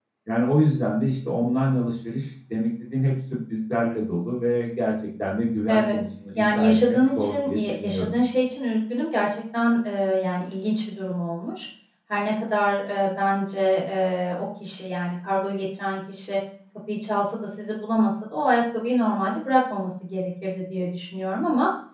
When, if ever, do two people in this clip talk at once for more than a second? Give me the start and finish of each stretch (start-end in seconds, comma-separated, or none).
6.4-8.1